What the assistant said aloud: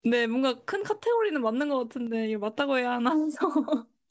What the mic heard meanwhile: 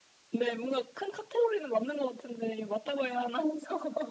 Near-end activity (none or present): none